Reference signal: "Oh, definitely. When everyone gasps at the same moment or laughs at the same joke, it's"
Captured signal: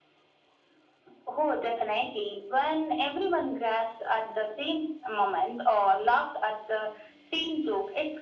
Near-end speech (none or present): none